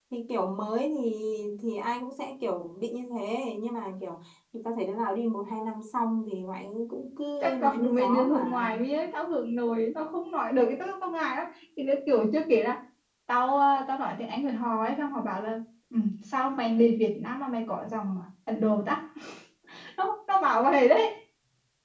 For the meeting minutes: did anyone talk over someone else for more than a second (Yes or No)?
Yes